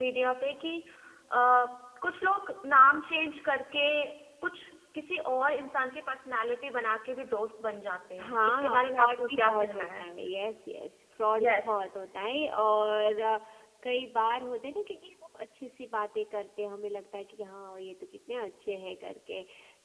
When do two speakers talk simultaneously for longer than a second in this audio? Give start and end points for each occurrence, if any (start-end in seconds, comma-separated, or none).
8.2-10.0